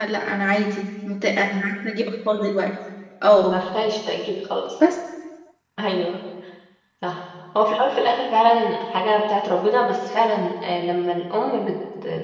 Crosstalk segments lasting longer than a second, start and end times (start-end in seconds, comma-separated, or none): none